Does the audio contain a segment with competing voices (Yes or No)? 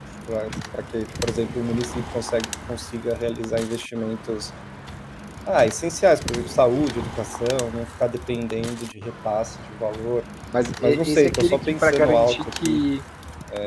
Yes